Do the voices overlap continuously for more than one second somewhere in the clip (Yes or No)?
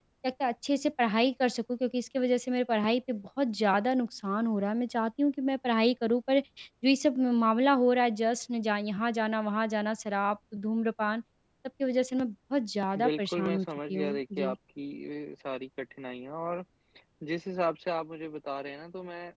Yes